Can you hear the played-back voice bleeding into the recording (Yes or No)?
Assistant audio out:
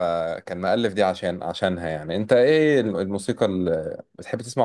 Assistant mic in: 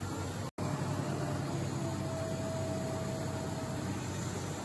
No